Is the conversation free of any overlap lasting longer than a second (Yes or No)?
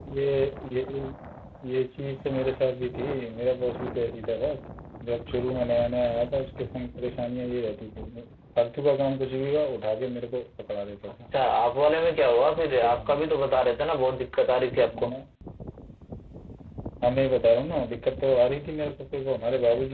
Yes